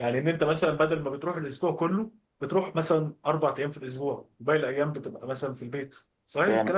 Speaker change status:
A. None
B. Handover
B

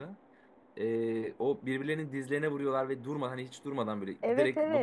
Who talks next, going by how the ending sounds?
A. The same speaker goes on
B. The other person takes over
B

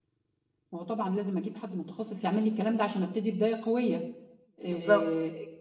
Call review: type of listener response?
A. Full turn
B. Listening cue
B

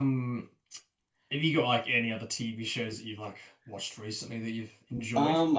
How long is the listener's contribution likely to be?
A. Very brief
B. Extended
B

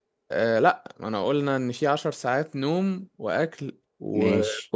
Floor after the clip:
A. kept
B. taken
A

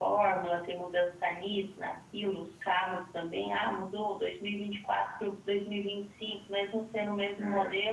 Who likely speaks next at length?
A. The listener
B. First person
B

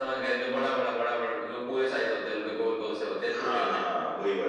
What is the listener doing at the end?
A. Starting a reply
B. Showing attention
A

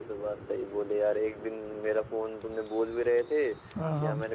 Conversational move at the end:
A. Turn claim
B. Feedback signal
B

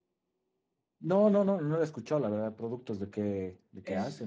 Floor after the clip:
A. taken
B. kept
A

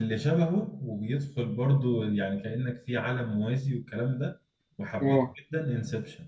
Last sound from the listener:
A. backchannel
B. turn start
A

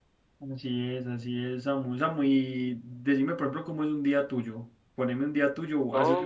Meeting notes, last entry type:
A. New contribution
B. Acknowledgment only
A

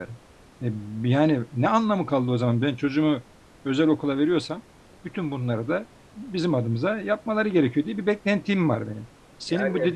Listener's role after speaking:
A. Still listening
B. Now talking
A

